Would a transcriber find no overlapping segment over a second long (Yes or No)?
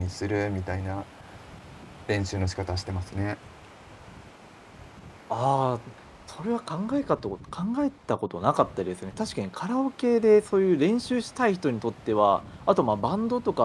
Yes